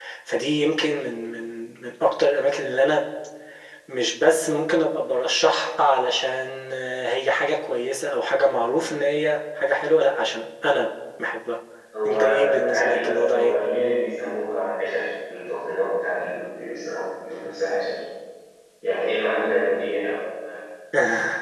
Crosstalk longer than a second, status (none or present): present